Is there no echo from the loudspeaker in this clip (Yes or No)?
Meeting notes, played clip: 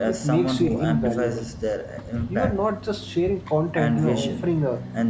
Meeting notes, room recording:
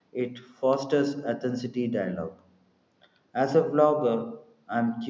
Yes